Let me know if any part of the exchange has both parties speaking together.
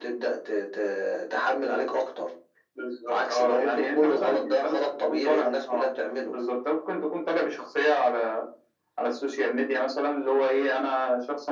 Yes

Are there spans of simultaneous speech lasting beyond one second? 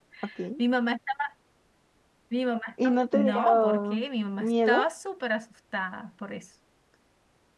Yes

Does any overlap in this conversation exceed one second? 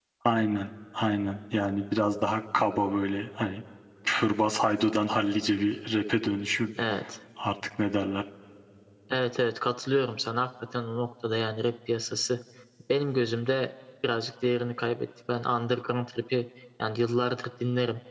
No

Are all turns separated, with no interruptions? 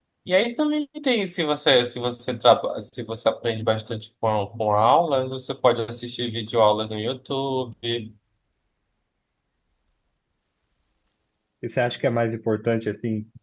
Yes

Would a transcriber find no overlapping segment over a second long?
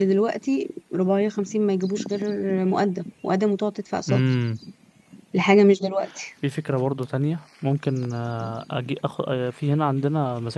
Yes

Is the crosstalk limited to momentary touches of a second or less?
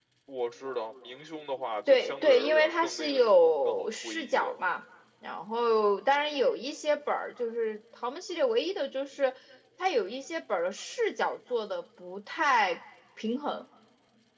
No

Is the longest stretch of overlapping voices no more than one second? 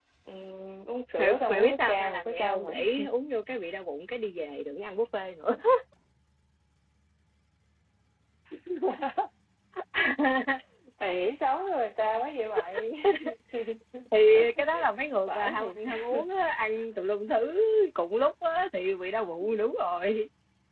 No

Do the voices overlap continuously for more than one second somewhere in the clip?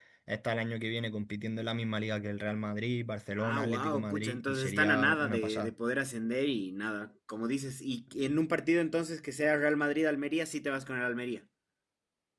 Yes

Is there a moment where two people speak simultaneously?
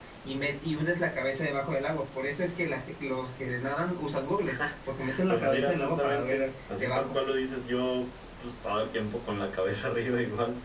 Yes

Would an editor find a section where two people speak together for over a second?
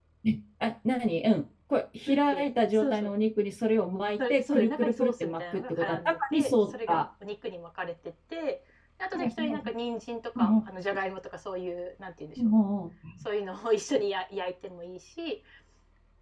Yes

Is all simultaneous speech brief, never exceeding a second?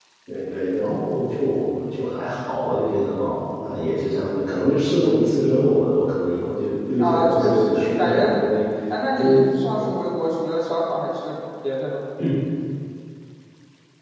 No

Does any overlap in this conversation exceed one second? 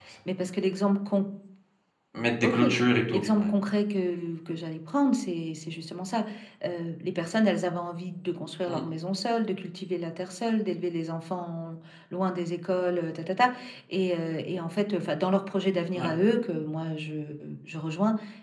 No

